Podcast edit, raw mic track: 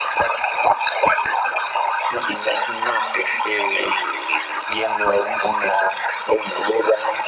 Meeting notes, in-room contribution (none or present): none